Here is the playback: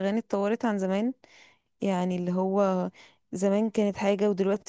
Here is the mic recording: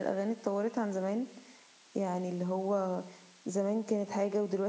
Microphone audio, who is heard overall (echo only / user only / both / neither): echo only